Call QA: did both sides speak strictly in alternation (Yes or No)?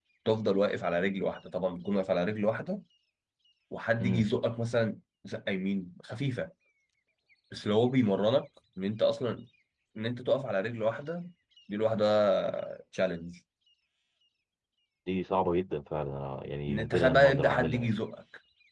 No